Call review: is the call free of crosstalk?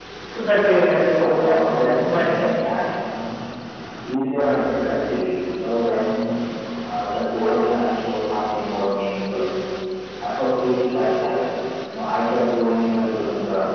No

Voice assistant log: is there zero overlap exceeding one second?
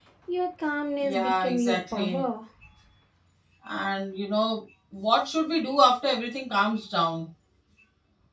No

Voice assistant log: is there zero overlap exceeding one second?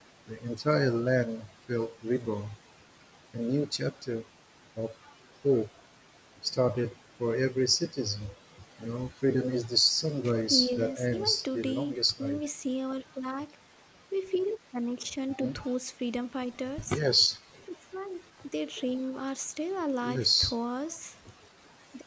No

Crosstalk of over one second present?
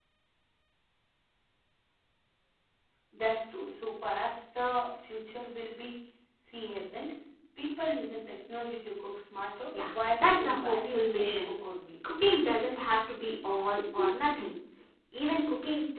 Yes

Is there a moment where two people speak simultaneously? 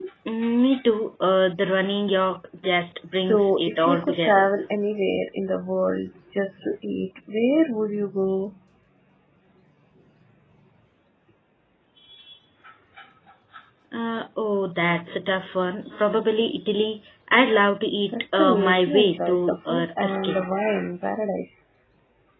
Yes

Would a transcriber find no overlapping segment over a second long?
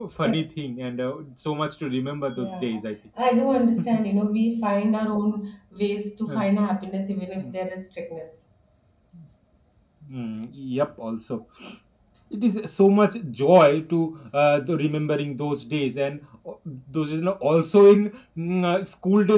Yes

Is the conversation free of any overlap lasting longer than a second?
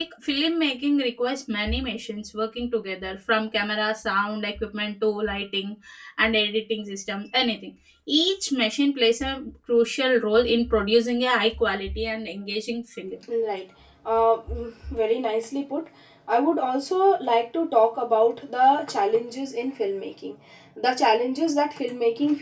Yes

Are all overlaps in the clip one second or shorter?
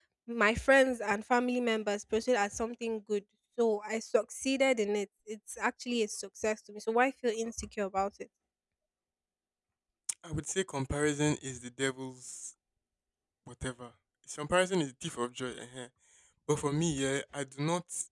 Yes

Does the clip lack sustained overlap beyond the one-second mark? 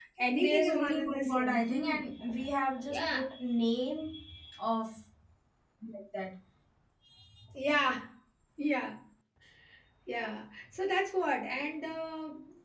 No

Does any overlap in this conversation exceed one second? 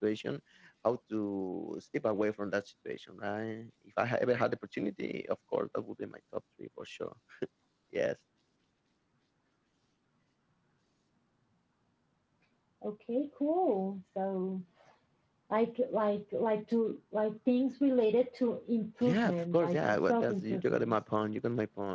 Yes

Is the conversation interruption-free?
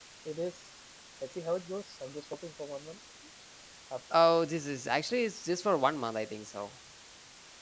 Yes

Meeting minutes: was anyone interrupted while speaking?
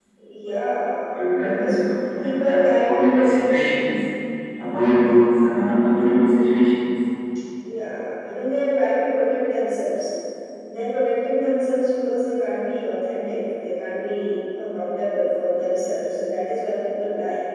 Yes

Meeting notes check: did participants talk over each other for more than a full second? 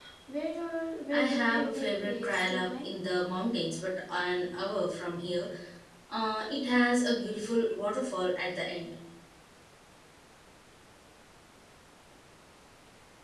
Yes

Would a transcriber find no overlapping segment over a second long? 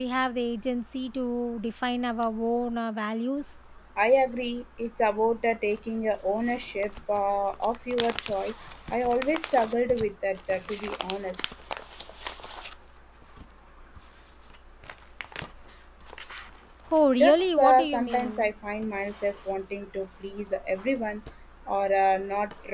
No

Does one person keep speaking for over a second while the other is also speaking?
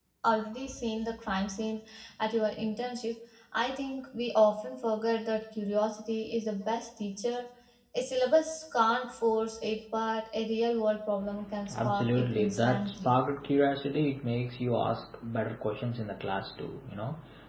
Yes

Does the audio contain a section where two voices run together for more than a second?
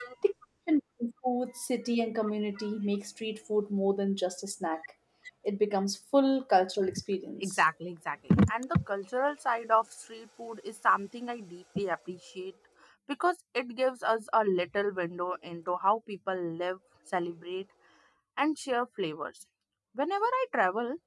No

